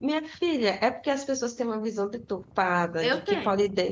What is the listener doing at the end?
listening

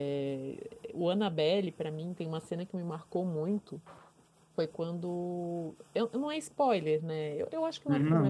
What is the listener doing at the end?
listening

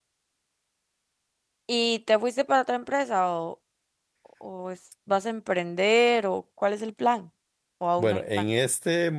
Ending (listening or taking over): taking over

